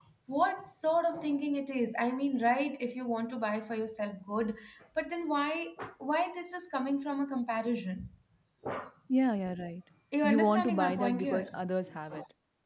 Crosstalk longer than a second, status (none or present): present